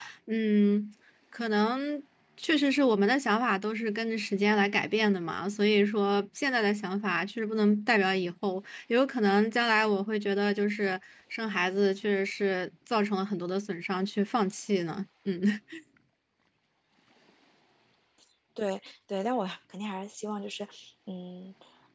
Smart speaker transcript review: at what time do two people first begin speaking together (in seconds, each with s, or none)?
none